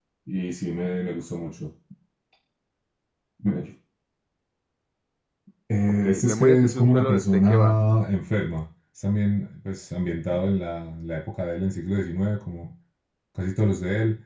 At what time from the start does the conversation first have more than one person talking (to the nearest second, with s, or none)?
6 s